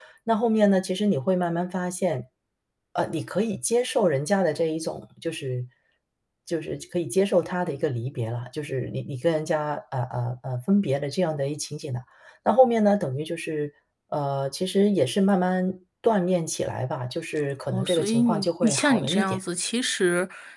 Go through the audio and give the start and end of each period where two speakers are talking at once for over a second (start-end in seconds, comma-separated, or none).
17.7-19.4